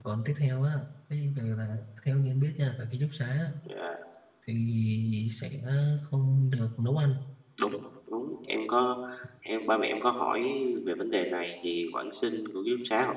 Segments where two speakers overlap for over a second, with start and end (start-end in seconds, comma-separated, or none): none